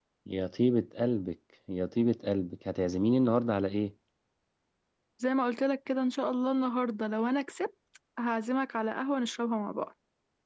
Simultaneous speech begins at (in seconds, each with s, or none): none